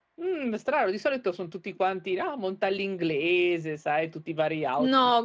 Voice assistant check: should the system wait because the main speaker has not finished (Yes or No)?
No